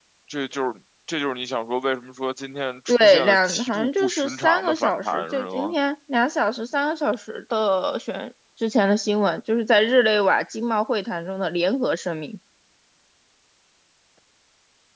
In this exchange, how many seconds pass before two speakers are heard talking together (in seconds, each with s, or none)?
2.9 s